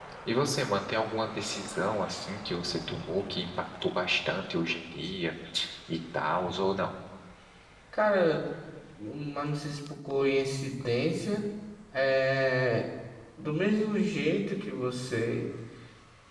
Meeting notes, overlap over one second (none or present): none